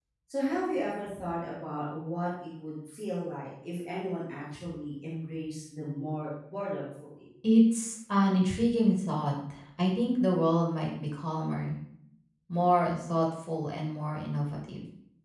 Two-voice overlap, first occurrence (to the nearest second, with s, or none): none